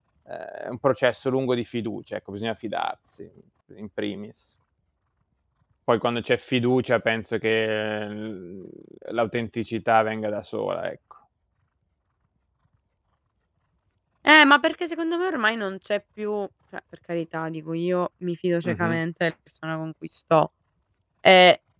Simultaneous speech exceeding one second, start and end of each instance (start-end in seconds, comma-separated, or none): none